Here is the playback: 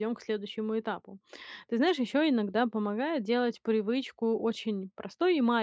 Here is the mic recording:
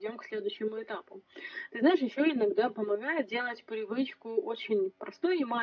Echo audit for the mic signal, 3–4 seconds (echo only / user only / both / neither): echo only